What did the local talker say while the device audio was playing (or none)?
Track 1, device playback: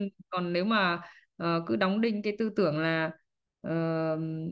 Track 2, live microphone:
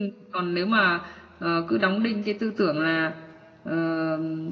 none